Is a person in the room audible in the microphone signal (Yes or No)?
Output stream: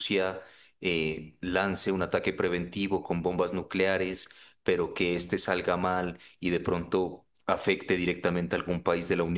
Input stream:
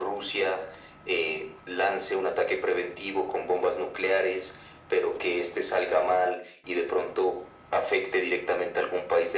No